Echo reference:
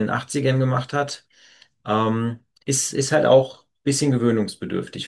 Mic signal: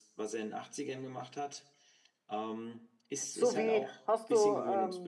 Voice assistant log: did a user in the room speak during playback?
Yes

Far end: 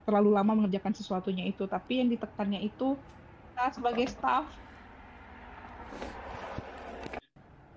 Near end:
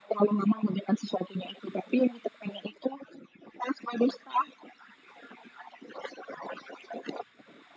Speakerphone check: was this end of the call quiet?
Yes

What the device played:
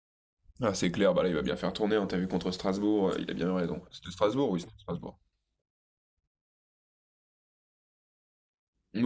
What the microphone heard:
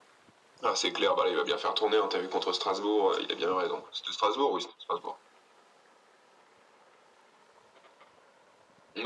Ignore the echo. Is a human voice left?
No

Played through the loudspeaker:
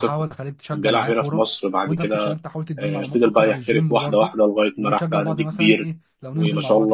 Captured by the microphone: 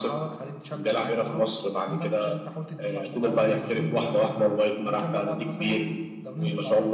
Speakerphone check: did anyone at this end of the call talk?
Yes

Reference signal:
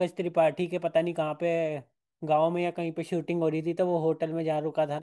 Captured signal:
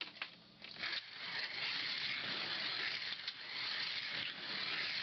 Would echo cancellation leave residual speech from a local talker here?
No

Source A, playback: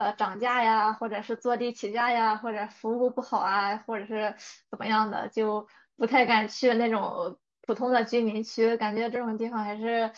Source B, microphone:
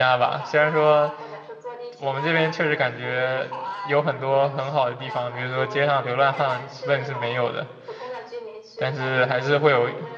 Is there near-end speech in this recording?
Yes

